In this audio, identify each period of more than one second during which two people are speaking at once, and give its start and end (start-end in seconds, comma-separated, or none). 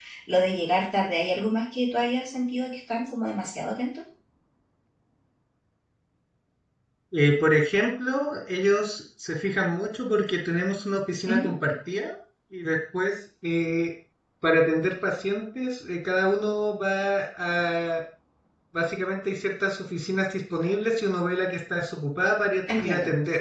none